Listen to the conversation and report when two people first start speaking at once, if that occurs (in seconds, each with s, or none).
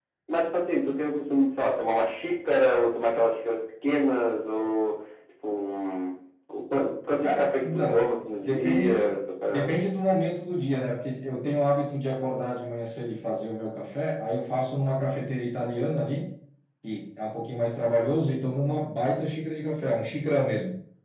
7.2 s